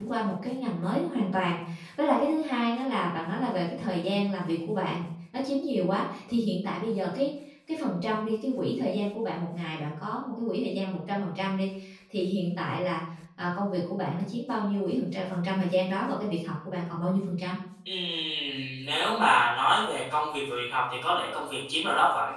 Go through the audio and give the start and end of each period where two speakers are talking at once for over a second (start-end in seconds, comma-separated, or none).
none